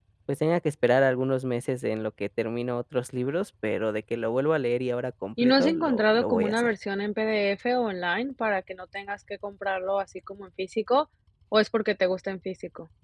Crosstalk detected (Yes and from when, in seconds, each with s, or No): Yes, from 5.4 s